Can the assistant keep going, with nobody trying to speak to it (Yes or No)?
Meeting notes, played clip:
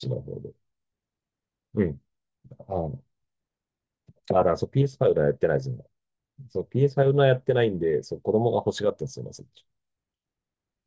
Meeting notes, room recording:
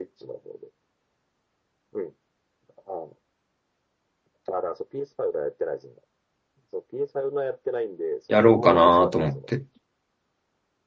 No